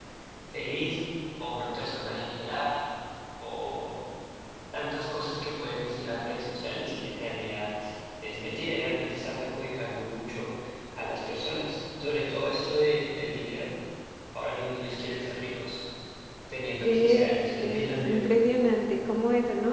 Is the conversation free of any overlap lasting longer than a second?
No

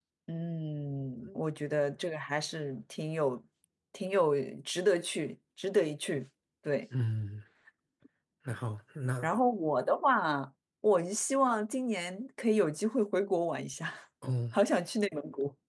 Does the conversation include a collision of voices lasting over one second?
No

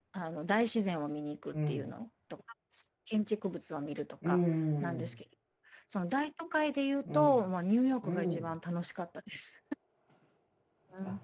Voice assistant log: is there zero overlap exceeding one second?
Yes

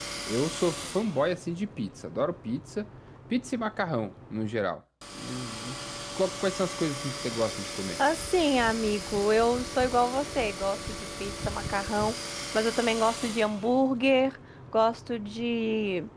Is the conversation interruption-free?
Yes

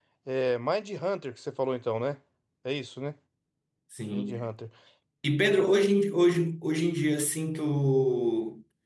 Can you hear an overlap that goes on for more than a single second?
No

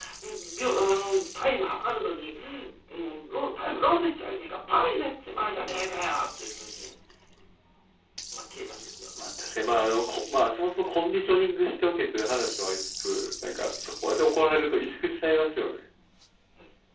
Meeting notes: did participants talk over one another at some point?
No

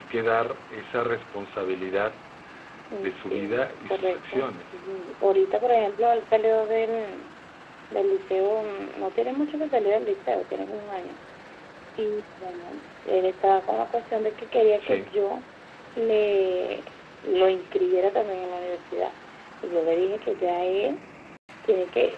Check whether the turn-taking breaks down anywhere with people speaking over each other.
Yes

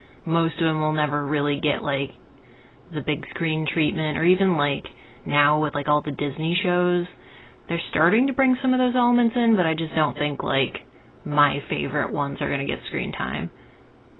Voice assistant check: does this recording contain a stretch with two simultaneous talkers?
No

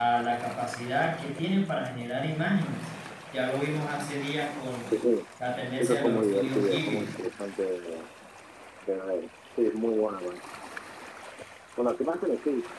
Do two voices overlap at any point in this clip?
Yes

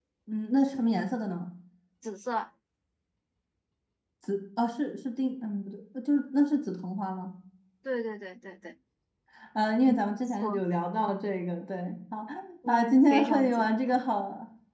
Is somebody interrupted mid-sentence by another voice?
Yes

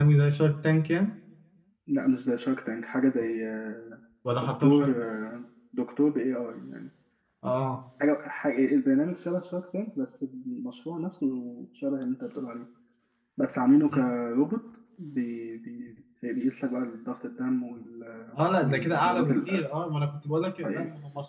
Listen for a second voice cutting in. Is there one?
Yes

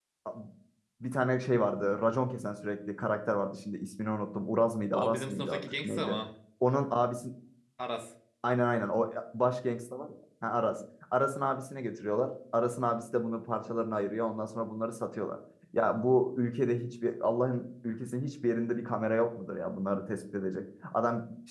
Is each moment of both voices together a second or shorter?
No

